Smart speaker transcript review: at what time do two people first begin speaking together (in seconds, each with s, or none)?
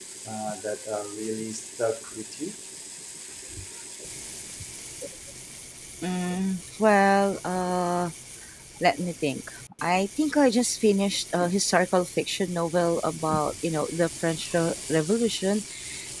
none